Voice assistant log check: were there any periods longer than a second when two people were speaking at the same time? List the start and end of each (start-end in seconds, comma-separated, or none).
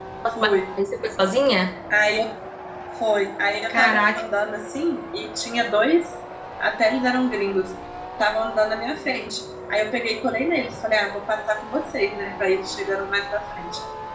none